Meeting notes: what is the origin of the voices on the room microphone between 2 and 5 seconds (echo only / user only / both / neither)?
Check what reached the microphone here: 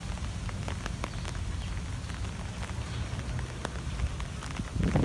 neither